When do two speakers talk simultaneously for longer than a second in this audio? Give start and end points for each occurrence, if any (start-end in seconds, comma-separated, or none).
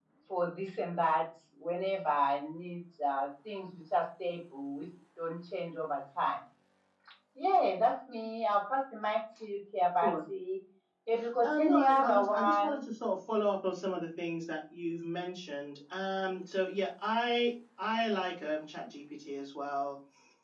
11.4-12.8